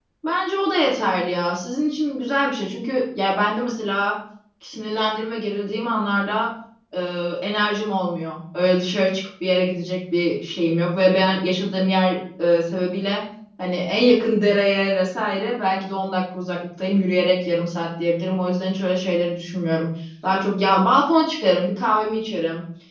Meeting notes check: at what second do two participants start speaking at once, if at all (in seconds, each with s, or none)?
none